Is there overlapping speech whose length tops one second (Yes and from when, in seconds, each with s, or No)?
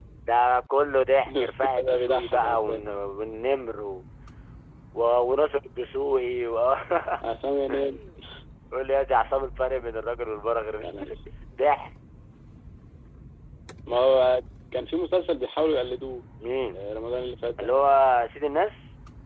Yes, from 1.3 s